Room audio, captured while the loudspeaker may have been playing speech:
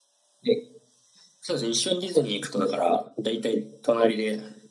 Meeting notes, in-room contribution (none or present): none